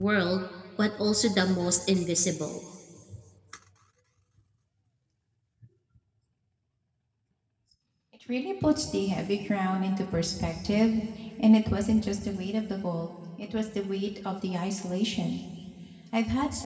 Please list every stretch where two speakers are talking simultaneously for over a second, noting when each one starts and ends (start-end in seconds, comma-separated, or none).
none